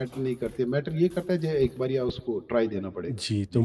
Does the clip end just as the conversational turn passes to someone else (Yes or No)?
Yes